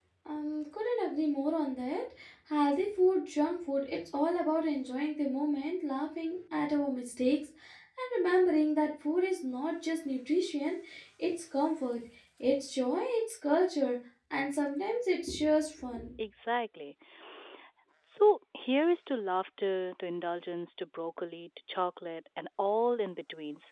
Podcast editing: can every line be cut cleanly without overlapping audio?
Yes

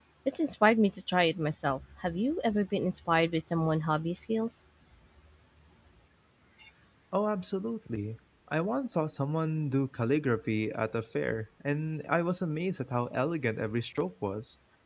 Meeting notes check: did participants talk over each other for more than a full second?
No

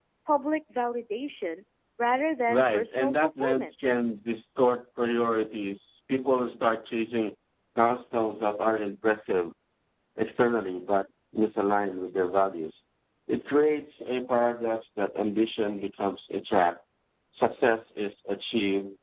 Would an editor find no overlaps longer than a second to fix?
No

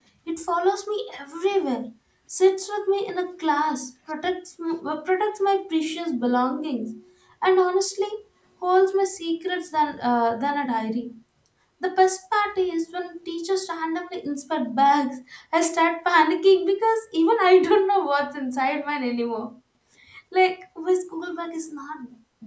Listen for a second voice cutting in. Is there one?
No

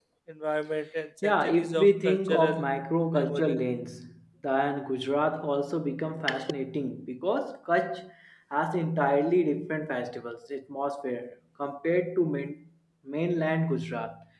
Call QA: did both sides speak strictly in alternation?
No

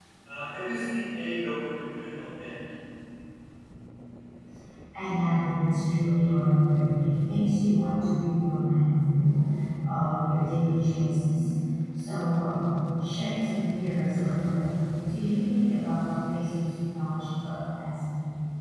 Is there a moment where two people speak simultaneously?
No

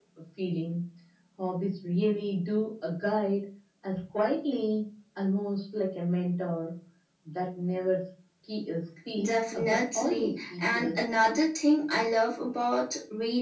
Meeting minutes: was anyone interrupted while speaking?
Yes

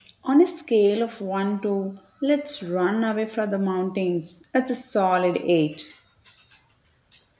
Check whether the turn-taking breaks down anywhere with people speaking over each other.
No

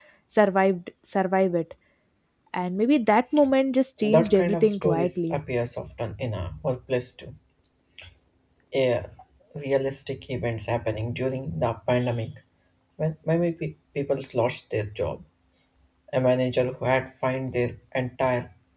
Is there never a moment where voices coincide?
No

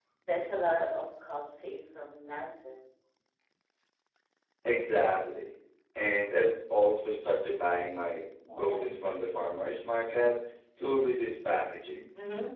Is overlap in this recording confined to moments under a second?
Yes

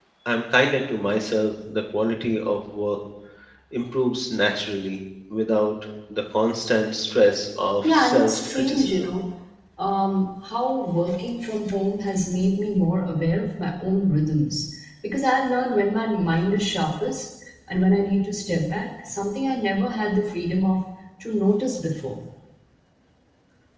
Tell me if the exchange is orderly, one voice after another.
No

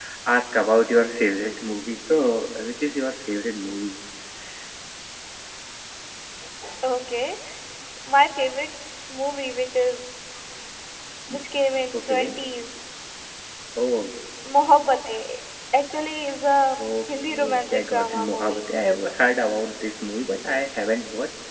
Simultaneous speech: Yes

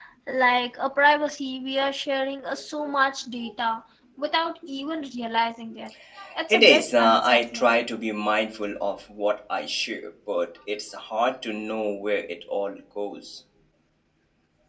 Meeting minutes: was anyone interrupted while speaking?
Yes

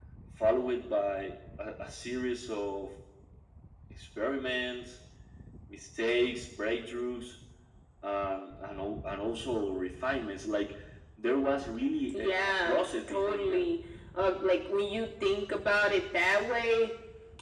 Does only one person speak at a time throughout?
No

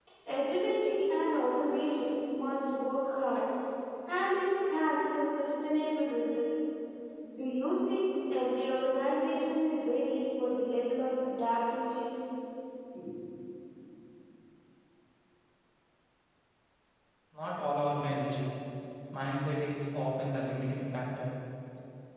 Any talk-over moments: No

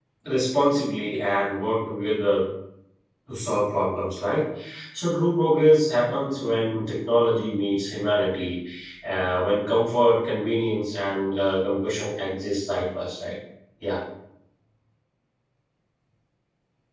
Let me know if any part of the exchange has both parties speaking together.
No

